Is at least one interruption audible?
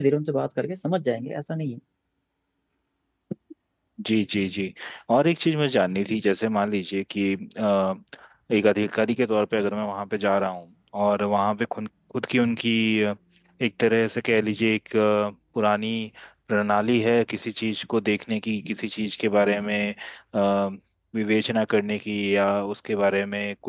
No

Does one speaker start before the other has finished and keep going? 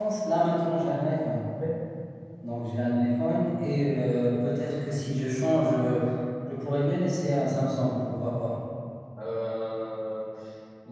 No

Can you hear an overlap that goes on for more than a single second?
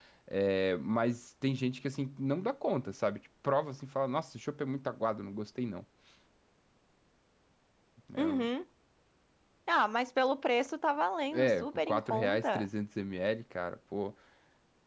Yes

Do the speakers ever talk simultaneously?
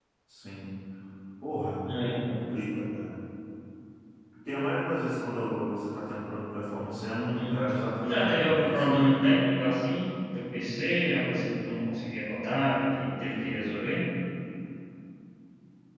Yes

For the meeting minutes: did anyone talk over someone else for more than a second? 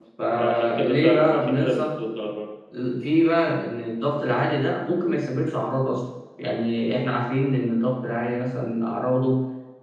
Yes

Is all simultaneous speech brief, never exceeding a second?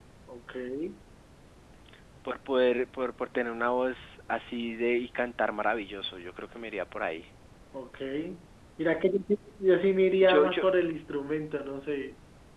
Yes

